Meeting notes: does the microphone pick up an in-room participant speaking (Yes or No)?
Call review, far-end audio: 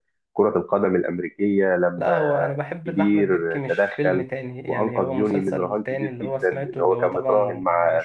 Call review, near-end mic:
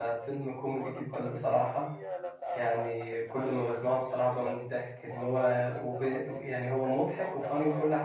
Yes